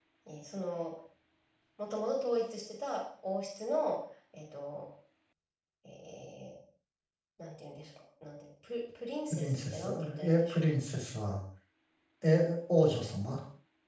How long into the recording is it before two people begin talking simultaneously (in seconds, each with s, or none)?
9.3 s